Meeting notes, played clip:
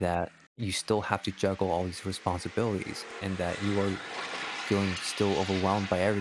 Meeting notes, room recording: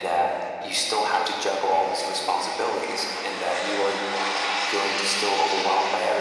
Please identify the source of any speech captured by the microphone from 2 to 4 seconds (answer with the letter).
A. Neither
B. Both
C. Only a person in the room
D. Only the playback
D